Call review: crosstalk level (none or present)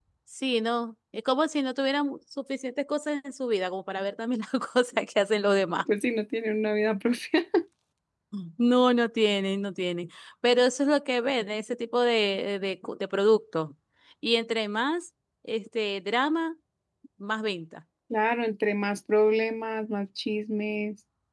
none